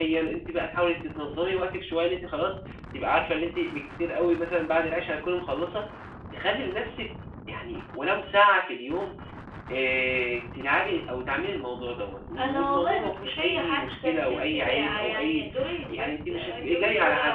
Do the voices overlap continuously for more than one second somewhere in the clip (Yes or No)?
Yes